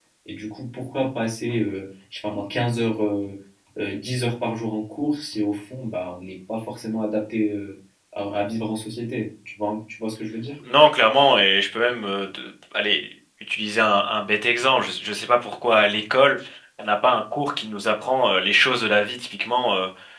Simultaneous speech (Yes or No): No